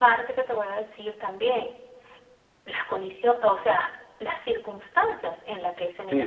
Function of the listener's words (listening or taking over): taking over